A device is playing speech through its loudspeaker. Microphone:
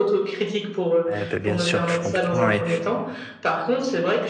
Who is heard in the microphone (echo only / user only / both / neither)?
both